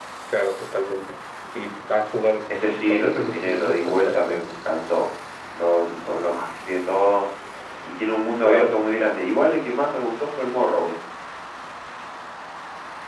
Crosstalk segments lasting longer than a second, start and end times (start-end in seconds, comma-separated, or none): 2.6-4.4